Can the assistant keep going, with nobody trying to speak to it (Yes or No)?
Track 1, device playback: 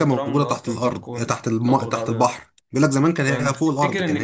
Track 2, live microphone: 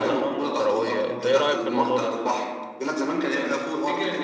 No